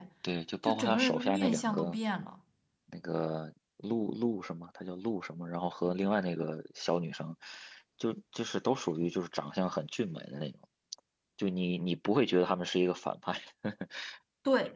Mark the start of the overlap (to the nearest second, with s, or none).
1 s